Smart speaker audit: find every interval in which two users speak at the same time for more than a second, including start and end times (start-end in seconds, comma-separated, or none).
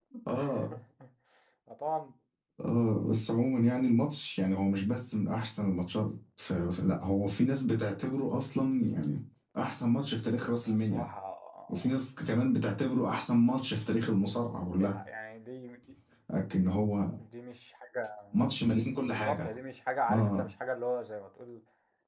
none